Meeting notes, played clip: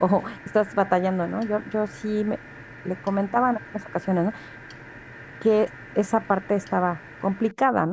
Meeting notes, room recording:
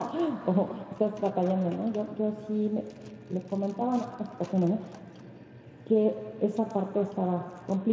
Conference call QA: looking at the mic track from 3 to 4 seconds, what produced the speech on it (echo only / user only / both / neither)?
echo only